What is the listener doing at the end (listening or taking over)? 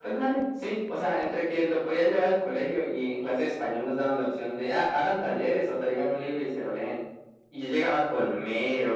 listening